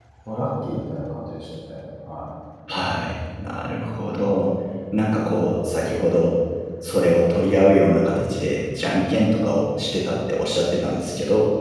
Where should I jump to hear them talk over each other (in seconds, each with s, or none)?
none